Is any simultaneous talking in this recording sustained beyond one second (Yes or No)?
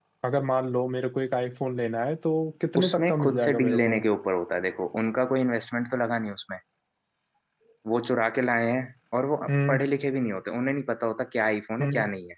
Yes